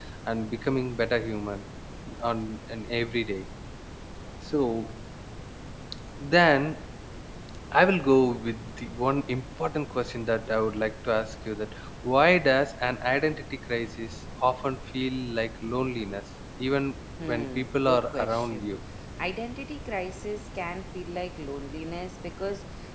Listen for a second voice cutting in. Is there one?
Yes, from 17.2 s

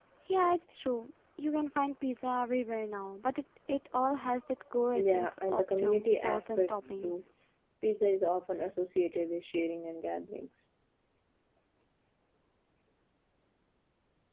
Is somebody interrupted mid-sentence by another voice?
Yes, from 4.9 s

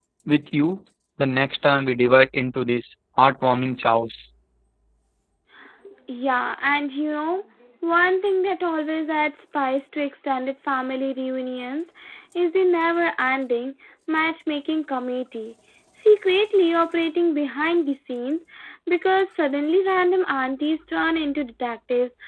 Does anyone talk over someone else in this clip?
No

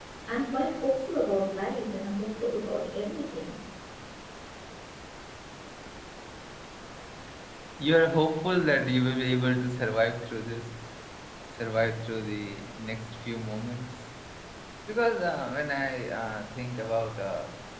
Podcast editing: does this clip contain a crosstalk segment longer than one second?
No

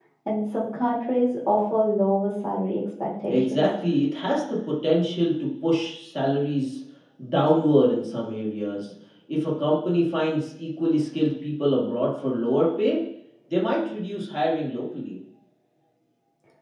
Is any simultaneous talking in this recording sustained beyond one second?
No

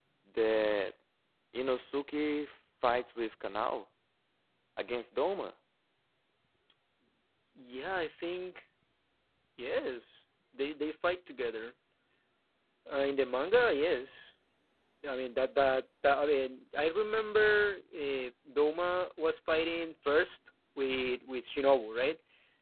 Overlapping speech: No

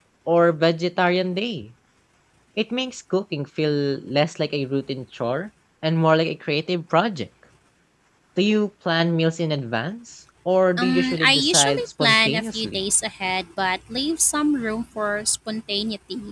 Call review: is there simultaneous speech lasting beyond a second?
Yes, from 10.8 s

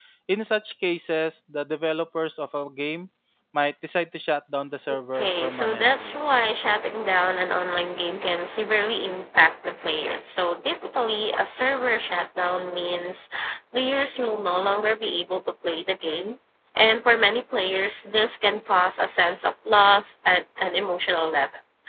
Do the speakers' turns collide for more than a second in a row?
Yes, from 4.9 s

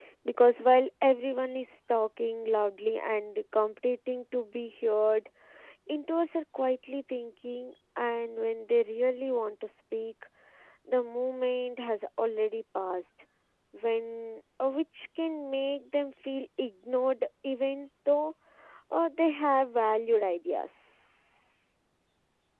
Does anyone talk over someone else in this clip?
No

